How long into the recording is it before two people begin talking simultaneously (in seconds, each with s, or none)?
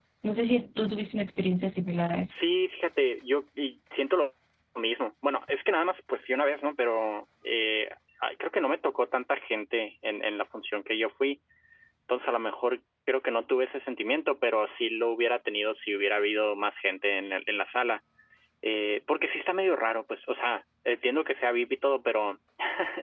none